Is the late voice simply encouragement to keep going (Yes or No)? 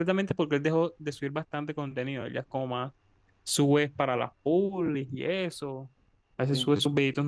Yes